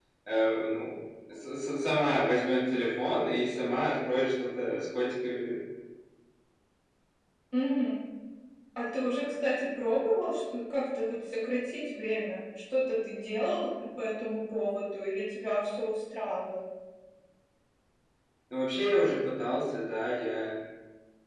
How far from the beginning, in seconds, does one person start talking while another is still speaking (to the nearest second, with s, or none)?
none